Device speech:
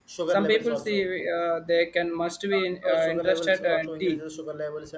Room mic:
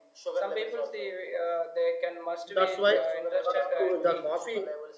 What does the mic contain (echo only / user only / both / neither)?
both